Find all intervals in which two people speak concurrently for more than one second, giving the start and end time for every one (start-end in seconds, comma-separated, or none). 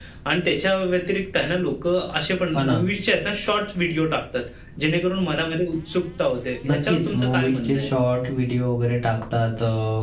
6.7-7.9